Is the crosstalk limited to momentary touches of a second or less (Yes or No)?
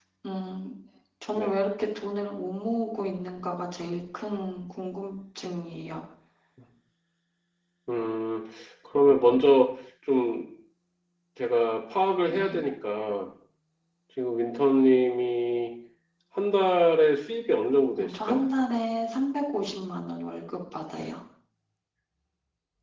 Yes